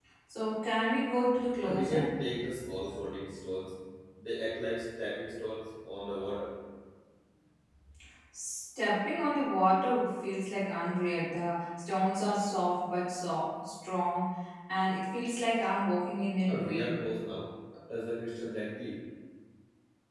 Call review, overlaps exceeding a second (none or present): none